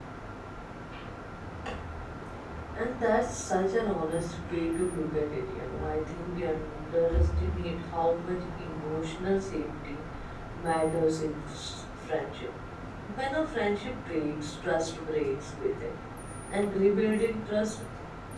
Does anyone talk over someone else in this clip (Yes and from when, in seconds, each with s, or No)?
No